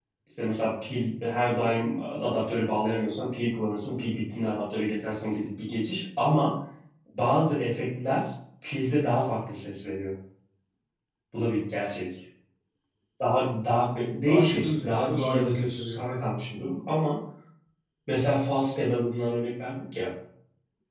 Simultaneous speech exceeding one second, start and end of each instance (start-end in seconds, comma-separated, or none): 14.3-16.0